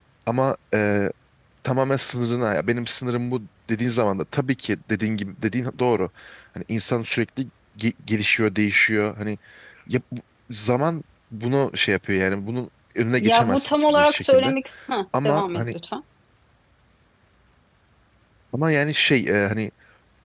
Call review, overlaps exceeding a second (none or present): present